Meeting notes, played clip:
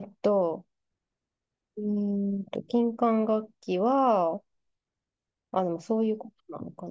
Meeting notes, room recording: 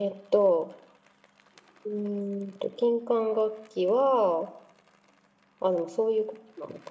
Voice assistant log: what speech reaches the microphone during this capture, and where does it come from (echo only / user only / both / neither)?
echo only